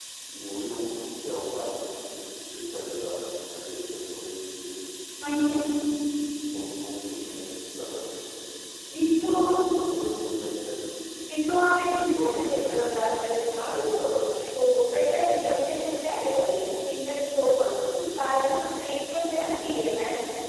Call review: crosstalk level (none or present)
none